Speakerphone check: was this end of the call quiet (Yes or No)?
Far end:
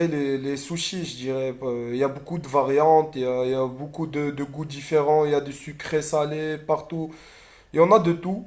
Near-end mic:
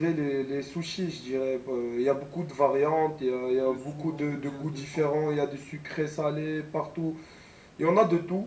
No